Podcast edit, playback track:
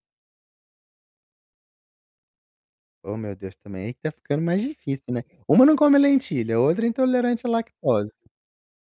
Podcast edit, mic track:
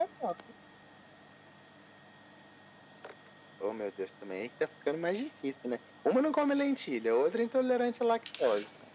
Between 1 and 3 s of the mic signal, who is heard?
neither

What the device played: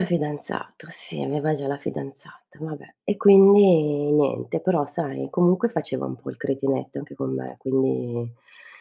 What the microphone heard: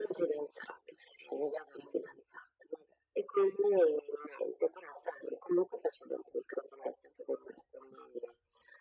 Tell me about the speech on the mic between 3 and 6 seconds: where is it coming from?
echo only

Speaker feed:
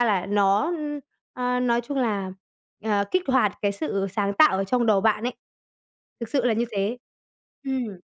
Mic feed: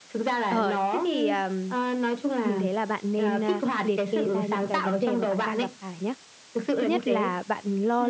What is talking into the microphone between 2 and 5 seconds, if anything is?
both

